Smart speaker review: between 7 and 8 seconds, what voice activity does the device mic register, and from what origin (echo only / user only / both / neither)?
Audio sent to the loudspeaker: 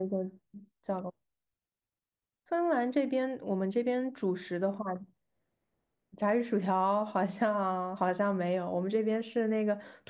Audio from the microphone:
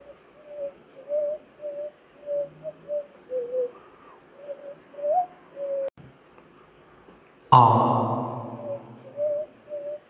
user only